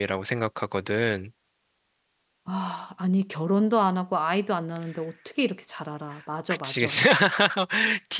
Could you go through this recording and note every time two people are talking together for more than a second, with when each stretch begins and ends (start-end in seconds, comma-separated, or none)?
none